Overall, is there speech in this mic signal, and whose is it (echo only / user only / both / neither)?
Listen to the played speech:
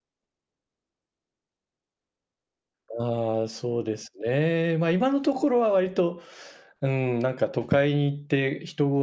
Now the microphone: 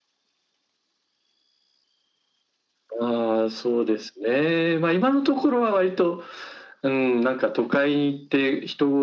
echo only